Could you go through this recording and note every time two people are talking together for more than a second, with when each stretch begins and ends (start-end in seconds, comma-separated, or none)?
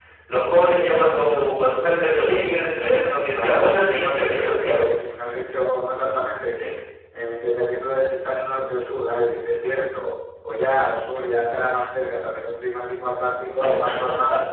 3.4-4.9